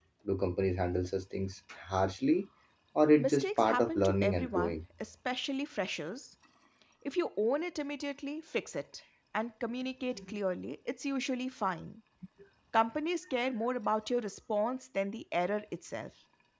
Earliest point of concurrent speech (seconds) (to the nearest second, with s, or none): 3 s